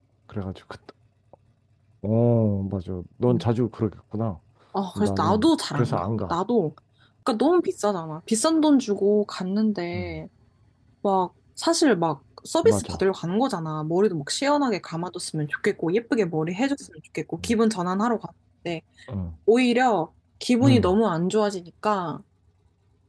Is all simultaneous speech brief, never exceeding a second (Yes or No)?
No